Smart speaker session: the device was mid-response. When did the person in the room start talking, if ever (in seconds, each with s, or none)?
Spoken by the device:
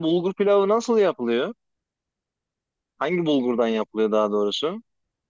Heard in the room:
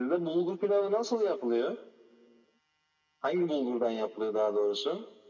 none